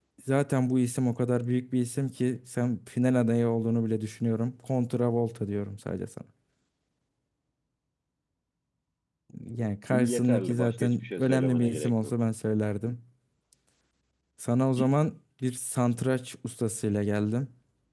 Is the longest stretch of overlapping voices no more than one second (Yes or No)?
No